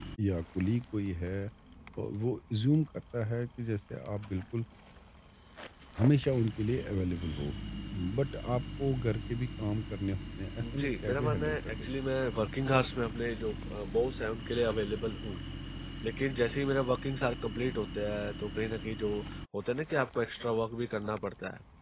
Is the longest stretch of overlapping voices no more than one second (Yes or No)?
No